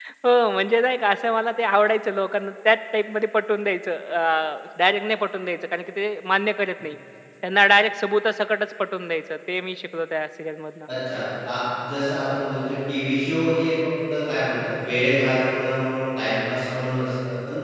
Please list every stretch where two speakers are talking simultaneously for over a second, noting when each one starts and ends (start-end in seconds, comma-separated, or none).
none